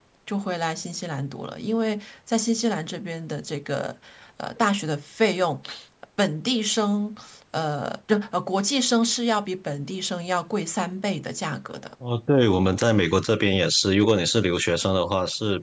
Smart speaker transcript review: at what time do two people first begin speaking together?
none

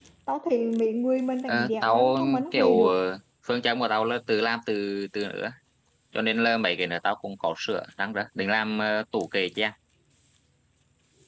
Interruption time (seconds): 1.5 s

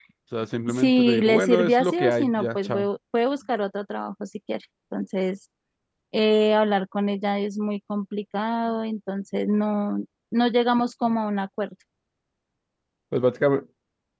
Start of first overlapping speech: 0.7 s

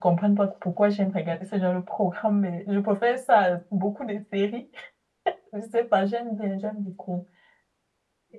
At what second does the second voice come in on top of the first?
none

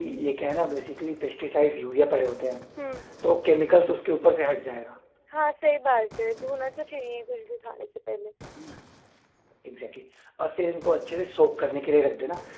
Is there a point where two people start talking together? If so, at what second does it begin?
none

